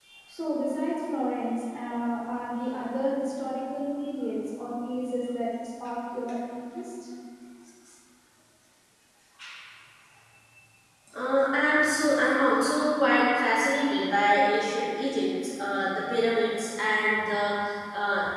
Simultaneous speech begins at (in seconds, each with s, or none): none